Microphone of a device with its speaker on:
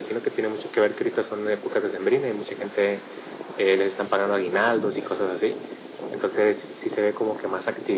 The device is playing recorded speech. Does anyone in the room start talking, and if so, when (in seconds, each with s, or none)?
none